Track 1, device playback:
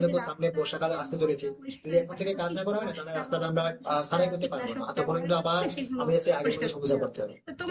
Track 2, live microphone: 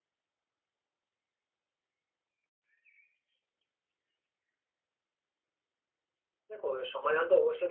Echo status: none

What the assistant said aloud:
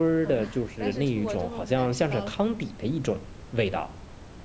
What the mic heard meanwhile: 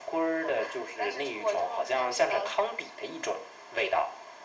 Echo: present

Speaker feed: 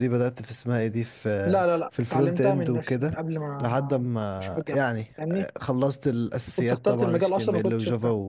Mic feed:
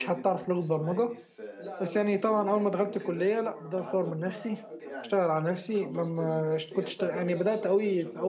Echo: present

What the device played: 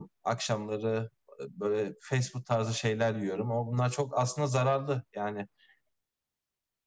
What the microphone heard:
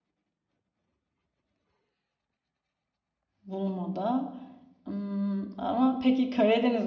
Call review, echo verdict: none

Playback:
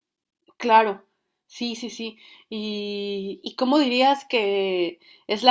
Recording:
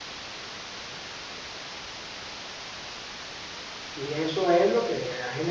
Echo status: none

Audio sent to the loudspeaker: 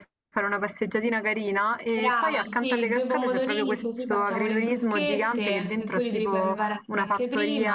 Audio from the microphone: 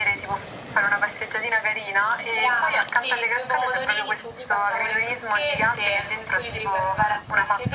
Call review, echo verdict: present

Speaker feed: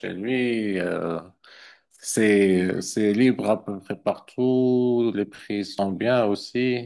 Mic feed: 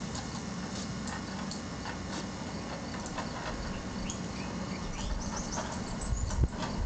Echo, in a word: none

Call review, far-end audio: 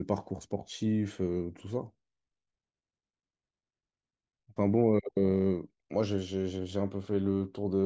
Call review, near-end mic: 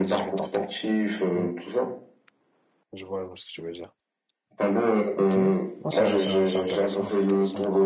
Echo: present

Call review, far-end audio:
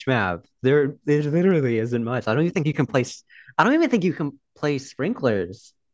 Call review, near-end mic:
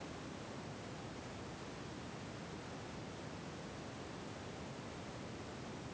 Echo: none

